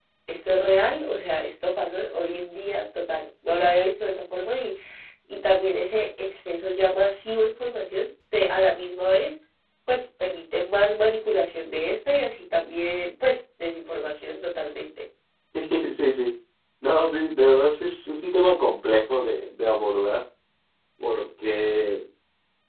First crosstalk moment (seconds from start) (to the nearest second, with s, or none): none